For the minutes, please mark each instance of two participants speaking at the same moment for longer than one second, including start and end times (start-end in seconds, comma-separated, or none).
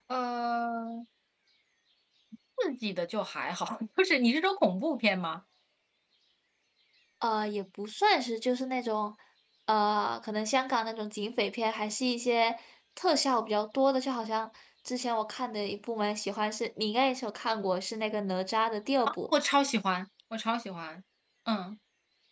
none